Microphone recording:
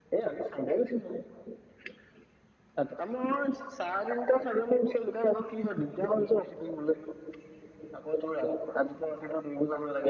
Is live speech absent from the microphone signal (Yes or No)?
Yes